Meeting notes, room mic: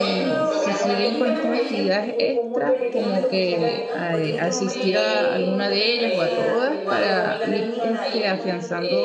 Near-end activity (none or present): present